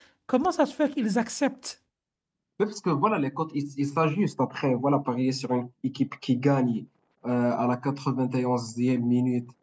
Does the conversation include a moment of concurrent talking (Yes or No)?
No